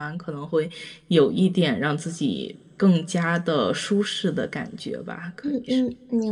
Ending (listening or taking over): taking over